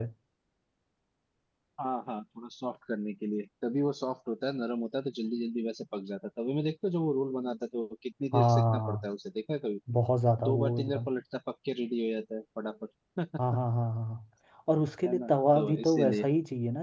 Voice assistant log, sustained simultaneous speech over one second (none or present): present